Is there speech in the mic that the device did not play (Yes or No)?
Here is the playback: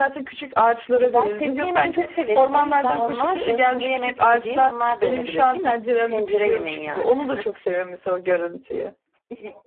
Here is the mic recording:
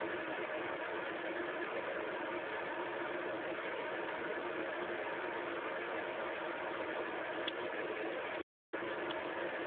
No